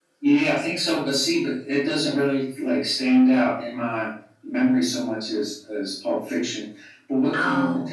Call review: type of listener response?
listening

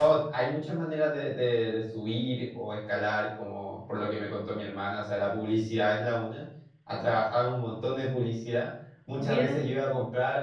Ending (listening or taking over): listening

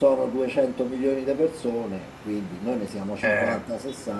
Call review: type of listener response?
listening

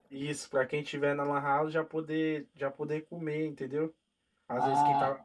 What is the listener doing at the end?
taking over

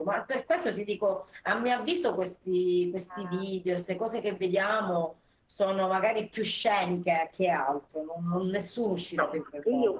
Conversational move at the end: taking over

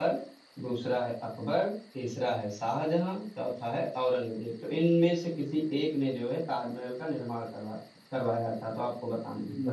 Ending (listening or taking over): taking over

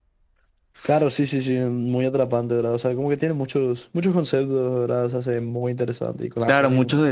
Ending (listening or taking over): taking over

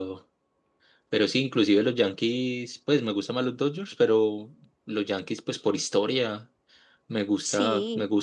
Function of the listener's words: listening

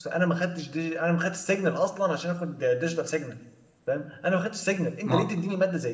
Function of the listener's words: listening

